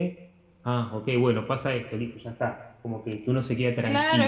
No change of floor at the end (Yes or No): No